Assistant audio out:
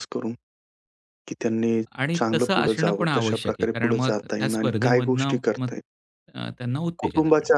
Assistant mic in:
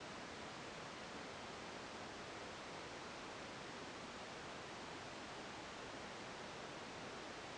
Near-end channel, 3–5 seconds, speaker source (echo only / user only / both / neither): neither